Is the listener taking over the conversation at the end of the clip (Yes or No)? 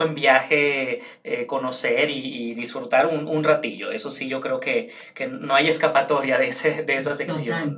Yes